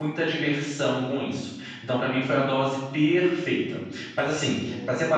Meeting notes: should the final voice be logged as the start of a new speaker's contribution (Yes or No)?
No